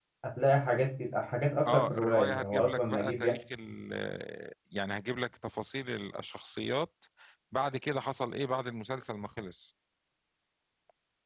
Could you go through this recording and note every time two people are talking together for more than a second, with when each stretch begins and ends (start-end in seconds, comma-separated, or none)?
1.7-3.3